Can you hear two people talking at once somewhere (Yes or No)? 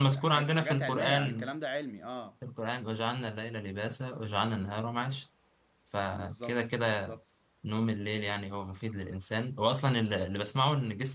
Yes